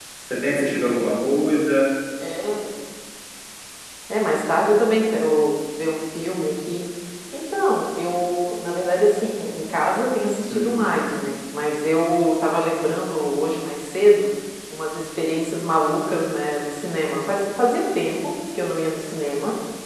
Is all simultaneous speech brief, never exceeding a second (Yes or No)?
Yes